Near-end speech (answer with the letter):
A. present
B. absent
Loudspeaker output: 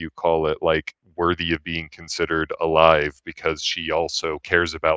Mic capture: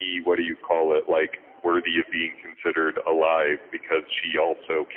B